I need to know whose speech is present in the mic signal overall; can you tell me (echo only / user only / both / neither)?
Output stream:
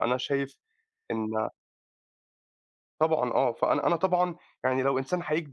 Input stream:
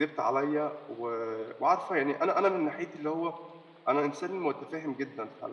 user only